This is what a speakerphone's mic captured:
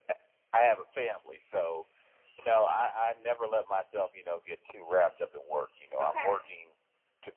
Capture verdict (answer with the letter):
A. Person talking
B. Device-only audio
A